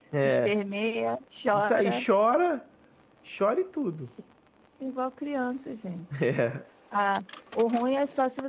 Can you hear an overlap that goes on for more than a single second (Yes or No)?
No